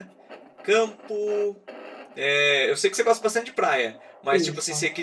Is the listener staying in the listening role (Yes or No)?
Yes